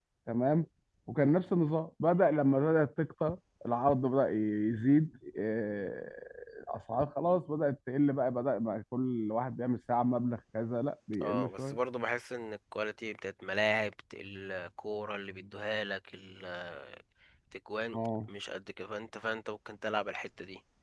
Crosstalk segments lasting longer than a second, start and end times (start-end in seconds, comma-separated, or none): none